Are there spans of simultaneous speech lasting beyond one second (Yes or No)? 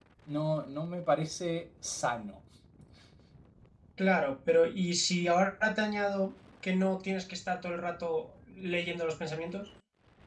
No